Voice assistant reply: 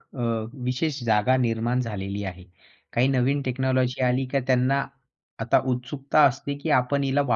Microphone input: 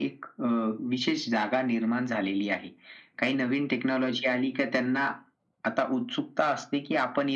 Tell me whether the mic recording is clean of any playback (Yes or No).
No